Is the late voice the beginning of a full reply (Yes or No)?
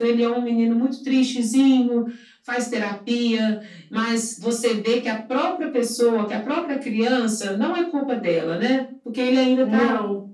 No